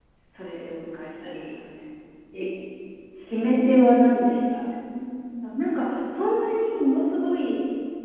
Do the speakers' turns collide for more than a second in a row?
No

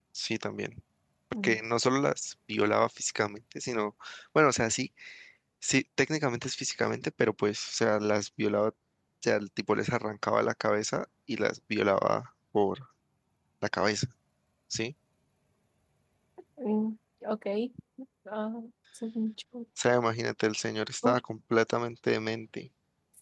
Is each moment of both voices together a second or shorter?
Yes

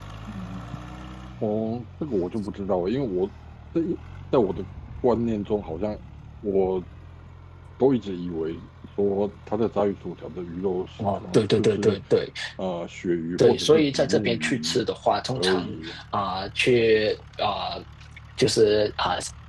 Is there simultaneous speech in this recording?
Yes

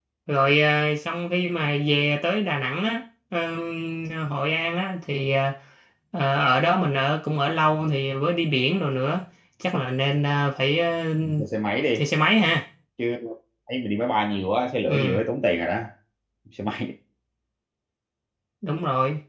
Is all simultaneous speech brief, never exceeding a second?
Yes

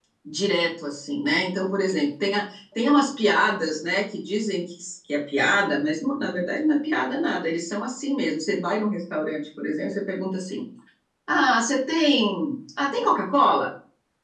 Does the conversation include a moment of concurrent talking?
No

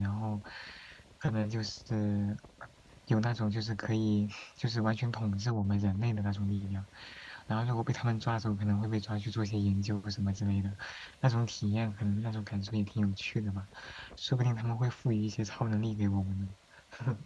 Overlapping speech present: No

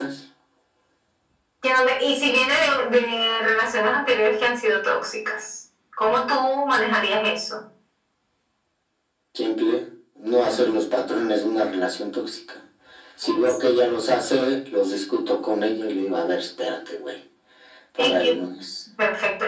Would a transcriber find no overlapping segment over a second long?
Yes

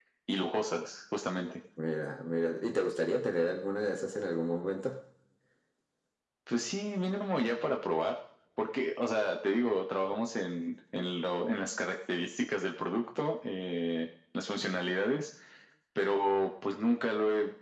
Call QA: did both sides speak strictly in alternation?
Yes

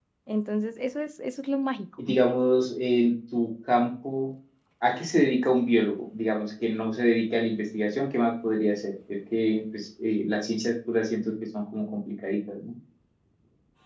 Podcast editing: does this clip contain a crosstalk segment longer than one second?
No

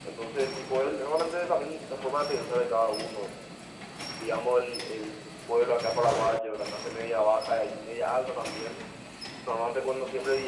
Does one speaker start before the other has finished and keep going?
No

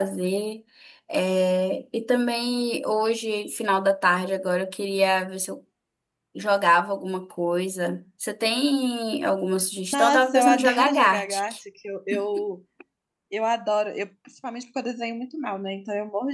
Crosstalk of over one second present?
Yes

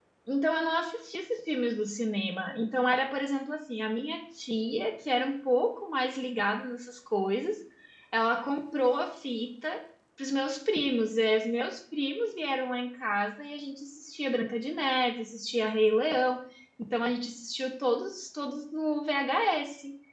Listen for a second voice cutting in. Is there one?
No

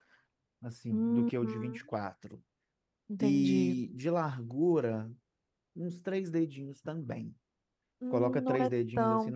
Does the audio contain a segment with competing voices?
Yes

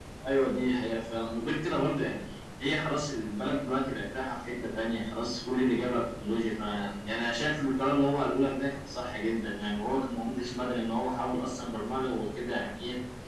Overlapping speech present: No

